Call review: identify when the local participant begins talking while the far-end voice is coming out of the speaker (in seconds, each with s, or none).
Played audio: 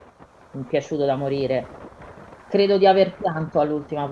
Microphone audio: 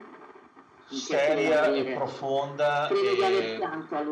0.8 s